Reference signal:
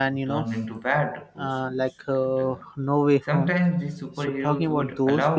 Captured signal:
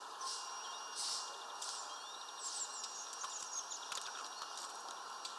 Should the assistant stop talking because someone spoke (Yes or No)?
No